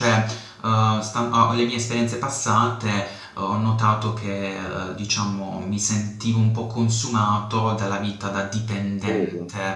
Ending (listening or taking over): listening